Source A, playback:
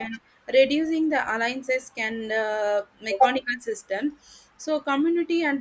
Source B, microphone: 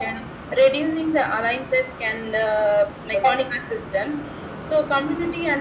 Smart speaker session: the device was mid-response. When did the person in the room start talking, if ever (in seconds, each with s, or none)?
none